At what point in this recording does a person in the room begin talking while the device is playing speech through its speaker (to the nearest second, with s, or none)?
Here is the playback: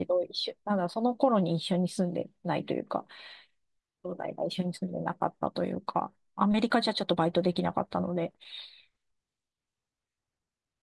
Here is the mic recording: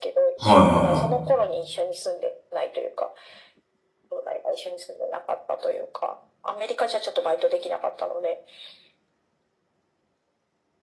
0 s